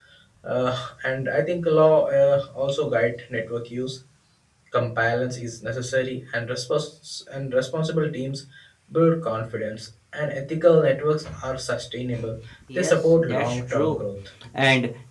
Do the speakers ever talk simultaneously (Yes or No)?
Yes